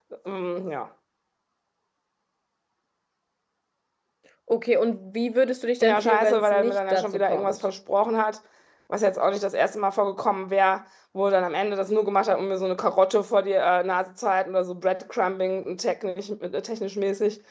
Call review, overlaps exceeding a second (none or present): present